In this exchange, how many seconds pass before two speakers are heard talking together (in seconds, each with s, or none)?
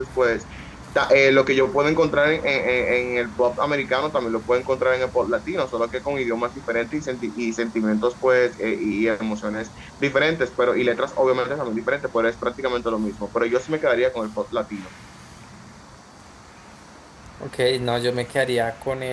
none